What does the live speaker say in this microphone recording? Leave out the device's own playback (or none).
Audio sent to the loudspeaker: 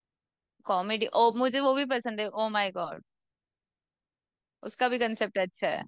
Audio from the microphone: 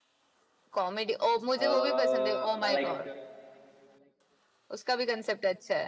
अह, मैं लाइक